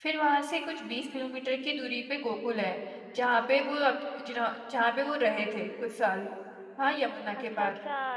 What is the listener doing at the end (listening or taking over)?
taking over